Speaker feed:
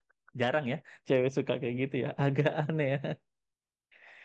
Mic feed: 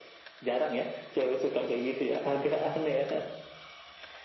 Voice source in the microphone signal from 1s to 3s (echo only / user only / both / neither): echo only